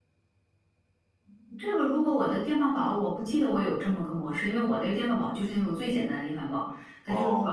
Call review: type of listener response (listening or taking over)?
listening